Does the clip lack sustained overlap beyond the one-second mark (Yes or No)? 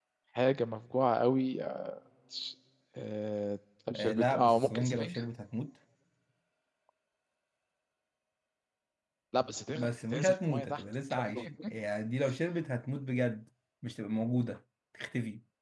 No